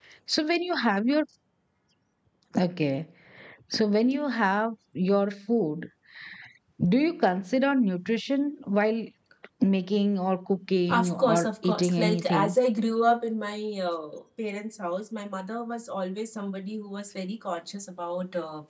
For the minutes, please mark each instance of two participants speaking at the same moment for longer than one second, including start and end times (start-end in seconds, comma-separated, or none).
10.9-12.6